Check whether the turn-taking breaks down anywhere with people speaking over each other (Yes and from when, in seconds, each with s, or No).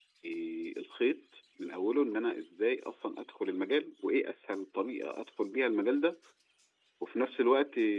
No